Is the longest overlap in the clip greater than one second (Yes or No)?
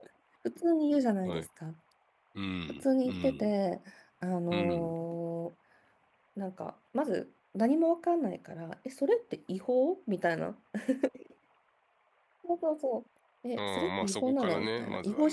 Yes